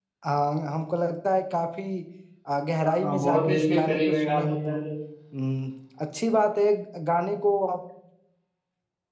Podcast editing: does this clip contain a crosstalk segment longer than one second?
Yes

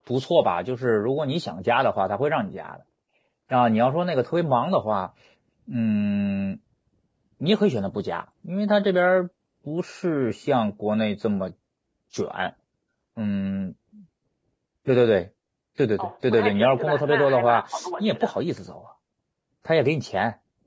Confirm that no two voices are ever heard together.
No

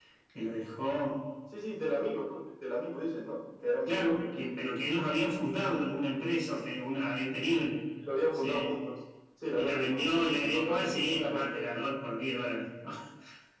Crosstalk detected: Yes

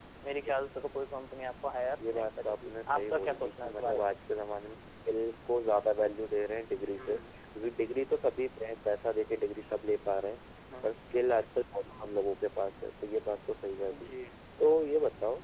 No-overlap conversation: No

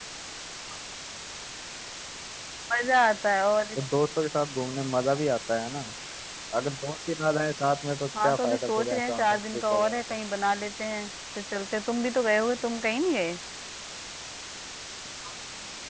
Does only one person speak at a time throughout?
No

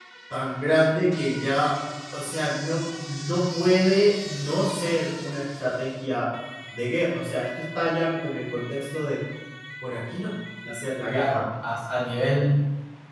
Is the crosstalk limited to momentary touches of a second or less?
Yes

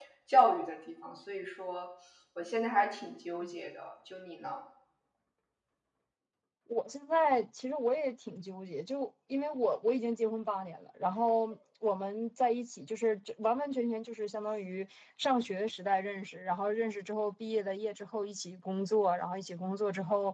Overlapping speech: No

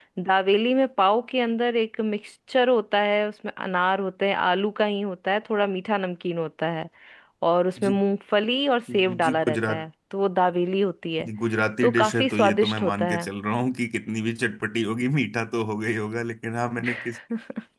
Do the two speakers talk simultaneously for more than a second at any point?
Yes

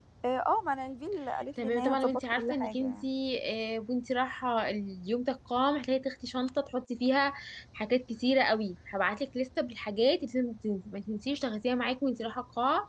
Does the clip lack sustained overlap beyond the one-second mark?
No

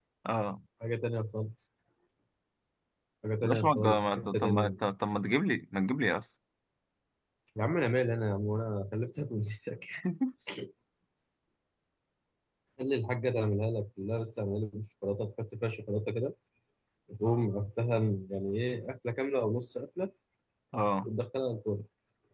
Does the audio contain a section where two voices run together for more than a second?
Yes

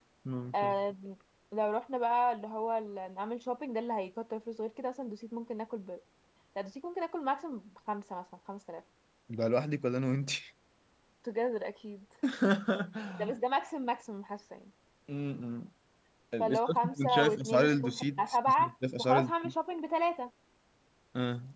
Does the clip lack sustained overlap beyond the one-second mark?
No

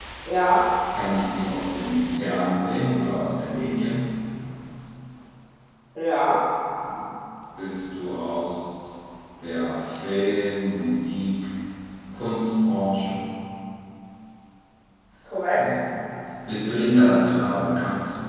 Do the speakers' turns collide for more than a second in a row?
No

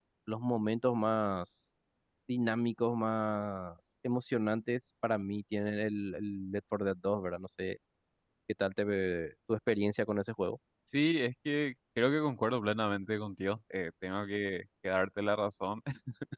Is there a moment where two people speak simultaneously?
No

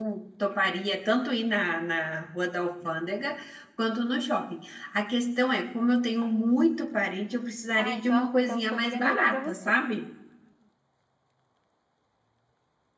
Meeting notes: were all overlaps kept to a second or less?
No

